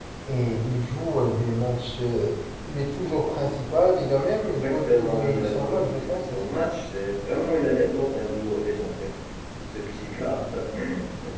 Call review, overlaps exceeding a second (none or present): present